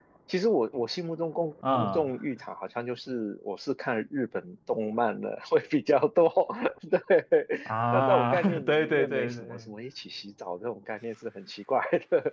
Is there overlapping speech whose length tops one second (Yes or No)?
Yes